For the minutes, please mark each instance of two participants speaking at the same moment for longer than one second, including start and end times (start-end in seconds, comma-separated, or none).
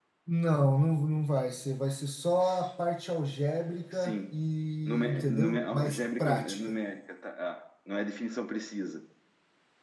4.9-6.8